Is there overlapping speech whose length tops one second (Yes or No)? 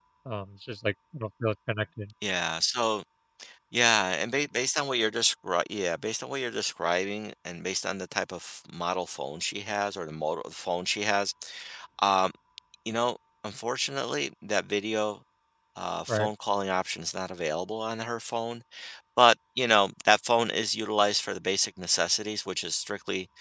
No